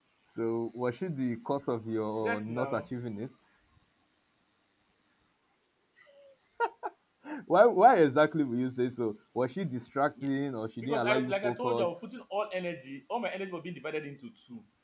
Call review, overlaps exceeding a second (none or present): present